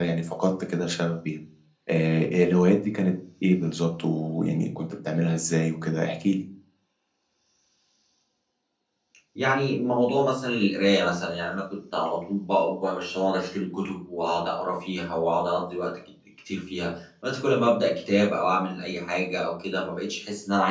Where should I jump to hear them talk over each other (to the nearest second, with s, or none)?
none